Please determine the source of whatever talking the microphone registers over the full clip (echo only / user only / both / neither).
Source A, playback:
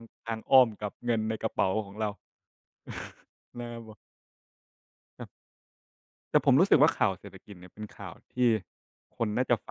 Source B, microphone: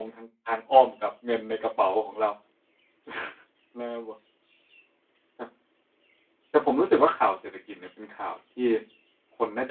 echo only